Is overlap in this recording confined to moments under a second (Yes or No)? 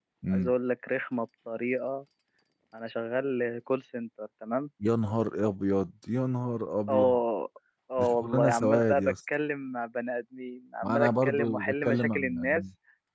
No